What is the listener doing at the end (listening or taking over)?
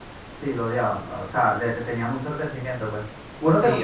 listening